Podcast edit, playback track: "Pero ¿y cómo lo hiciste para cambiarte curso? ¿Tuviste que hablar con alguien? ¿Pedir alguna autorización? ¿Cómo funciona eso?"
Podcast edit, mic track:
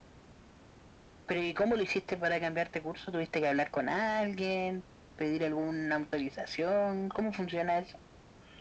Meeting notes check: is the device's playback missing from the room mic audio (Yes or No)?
No